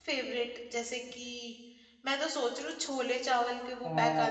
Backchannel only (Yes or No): Yes